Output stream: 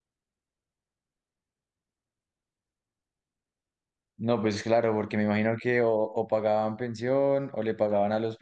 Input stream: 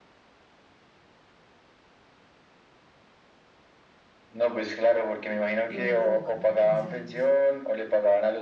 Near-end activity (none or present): present